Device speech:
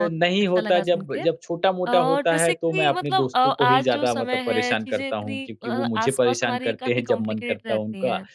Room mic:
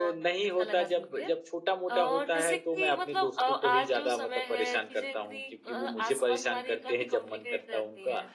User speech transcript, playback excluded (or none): none